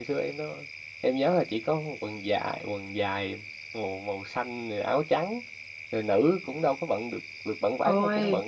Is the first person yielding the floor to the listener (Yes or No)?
No